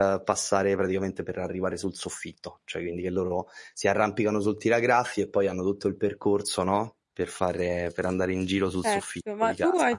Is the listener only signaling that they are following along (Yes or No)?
No